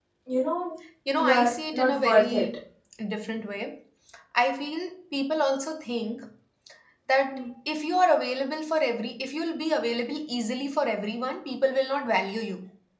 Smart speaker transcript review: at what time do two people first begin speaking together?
1.2 s

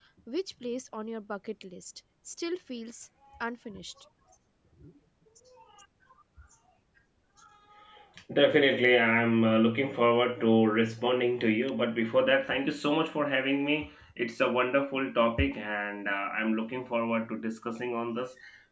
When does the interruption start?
none

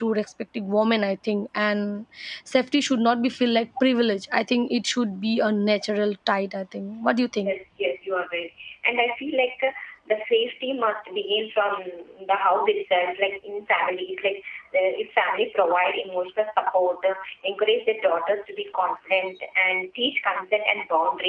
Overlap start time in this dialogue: none

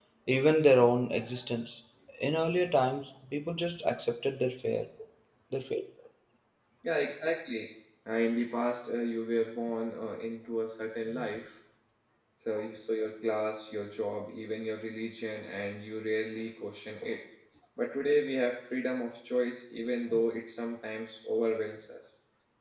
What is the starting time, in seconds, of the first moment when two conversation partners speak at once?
none

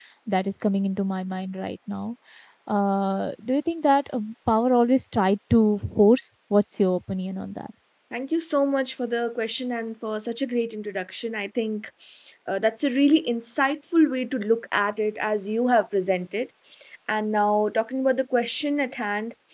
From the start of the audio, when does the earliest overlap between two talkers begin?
none

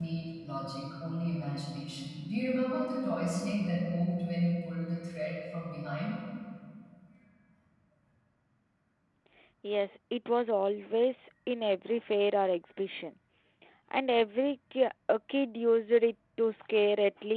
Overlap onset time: none

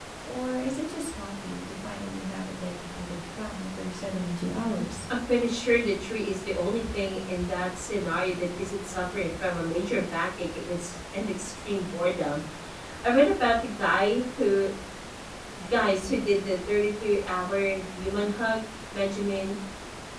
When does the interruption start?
none

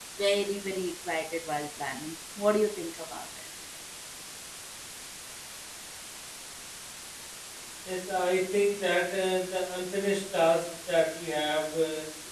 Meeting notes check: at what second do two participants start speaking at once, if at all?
none

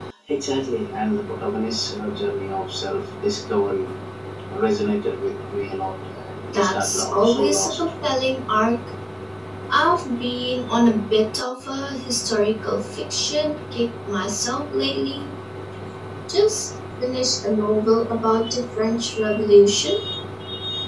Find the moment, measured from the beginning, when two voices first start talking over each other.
6.5 s

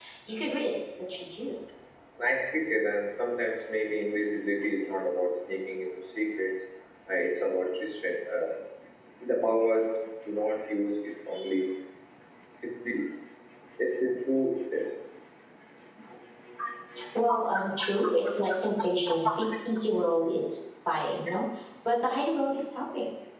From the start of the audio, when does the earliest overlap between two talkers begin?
none

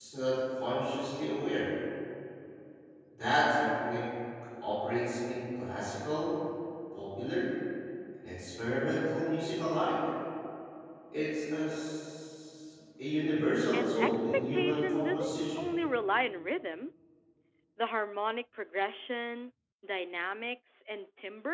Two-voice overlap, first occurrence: 13.7 s

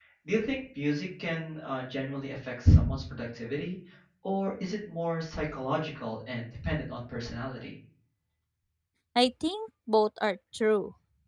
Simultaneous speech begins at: none

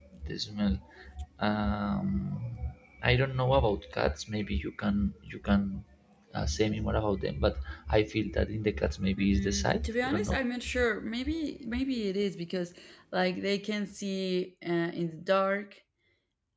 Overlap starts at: 9.2 s

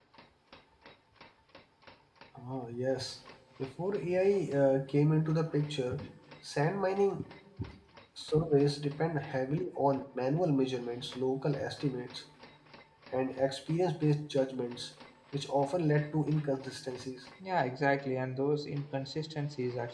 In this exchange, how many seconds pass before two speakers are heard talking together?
none

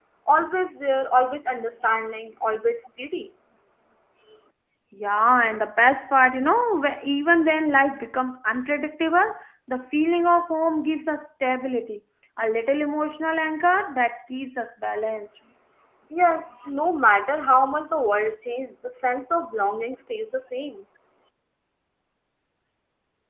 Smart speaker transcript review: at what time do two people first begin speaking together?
none

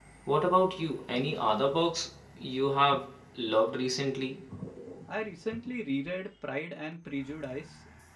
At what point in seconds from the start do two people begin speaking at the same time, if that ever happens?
none

